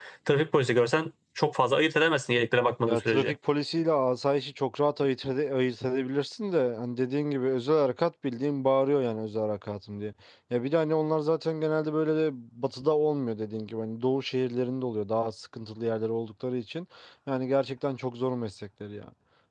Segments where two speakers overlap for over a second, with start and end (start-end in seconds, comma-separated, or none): none